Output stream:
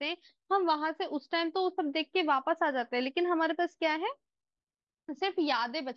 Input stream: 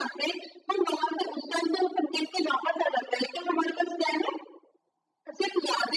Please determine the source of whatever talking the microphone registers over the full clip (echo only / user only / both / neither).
echo only